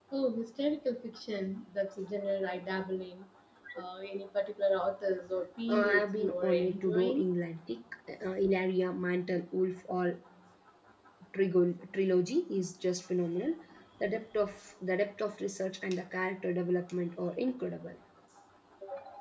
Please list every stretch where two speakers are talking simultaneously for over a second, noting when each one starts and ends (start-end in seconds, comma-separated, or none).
5.7-7.2